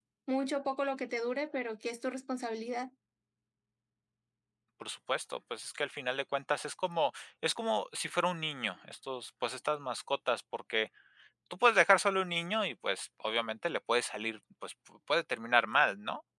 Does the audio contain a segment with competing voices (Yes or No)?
No